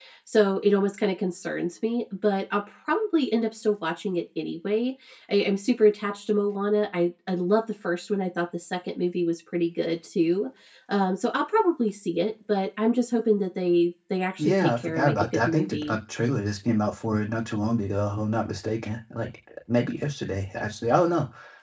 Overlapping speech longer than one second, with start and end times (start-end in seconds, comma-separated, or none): 14.4-16.0